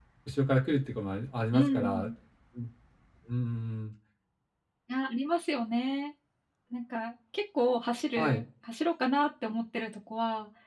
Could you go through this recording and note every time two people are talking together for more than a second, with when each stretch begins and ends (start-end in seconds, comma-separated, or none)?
none